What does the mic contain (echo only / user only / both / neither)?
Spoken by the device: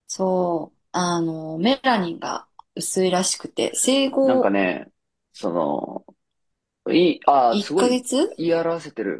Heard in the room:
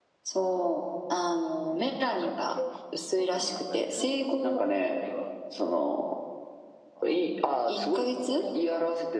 both